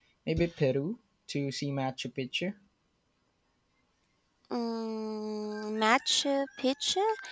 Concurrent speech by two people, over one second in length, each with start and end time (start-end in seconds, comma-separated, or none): none